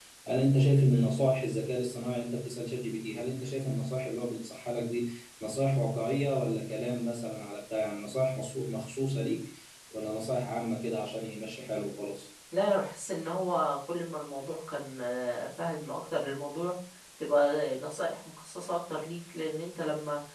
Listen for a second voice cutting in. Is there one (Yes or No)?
No